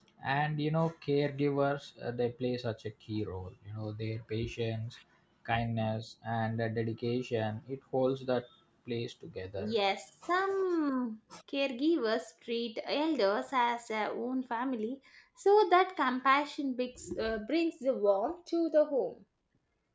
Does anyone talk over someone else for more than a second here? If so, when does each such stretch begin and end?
none

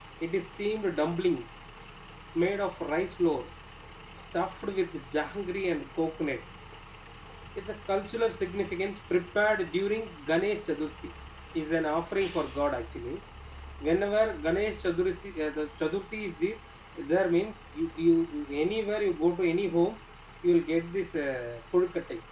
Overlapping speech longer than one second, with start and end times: none

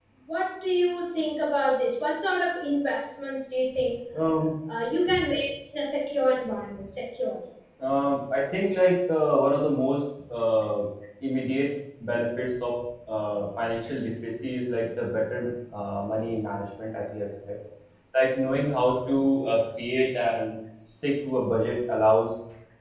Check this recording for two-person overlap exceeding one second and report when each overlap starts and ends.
none

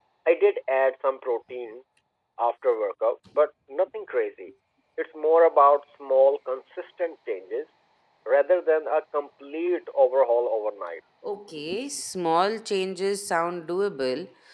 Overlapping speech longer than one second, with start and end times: none

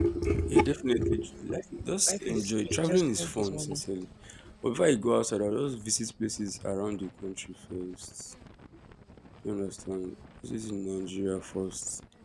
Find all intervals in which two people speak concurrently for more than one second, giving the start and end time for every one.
2.1-3.8

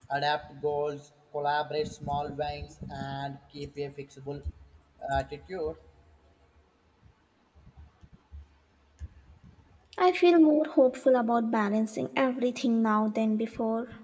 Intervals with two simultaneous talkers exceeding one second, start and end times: none

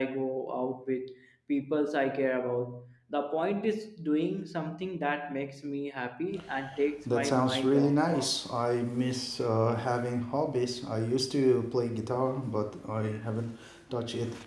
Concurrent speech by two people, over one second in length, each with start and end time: 7.1-8.3

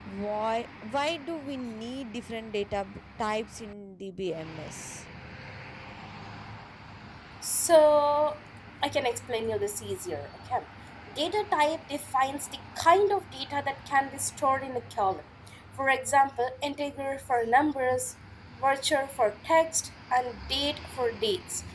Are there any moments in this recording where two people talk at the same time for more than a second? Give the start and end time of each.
none

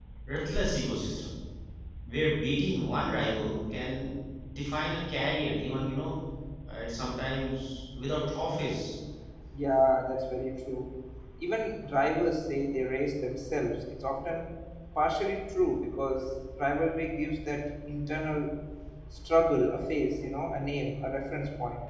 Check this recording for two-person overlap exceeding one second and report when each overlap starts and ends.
none

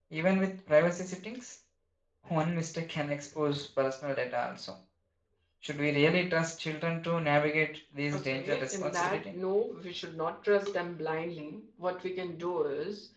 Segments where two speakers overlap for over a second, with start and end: 8.1-9.3

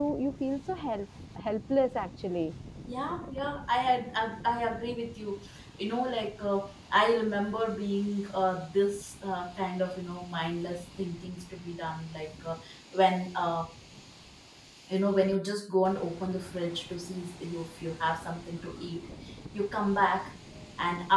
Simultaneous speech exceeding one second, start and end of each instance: none

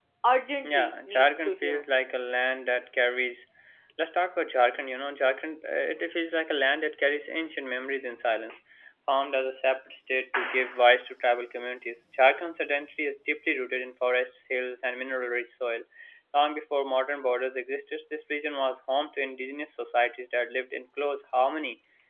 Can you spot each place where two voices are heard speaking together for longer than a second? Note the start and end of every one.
0.6-1.8

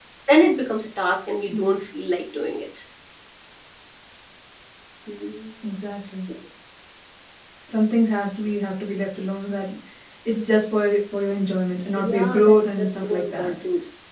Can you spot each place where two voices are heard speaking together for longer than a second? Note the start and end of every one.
12.0-13.5

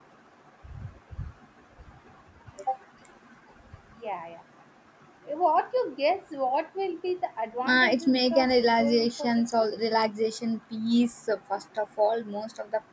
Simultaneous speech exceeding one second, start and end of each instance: 7.7-9.7

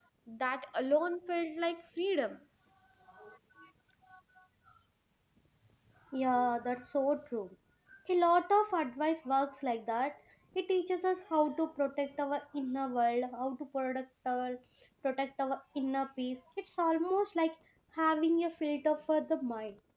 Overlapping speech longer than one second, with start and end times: none

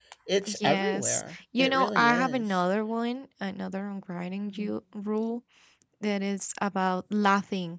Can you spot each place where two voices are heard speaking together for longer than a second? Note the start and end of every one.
0.6-2.4

